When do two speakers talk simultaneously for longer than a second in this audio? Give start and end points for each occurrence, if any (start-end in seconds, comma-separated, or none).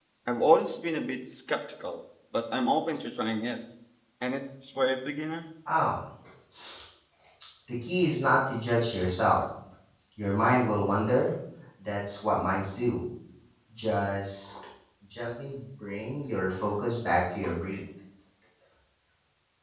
none